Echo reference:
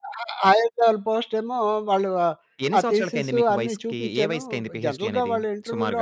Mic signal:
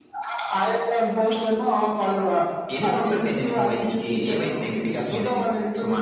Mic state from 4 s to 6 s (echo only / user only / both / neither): echo only